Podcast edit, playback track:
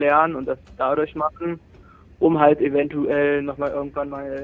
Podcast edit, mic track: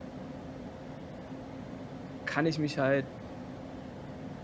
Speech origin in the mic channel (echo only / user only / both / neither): user only